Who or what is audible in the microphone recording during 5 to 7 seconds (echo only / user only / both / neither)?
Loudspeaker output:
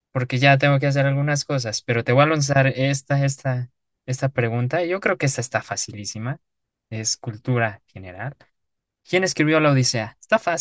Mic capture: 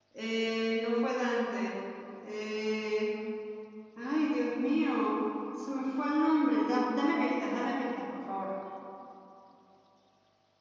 user only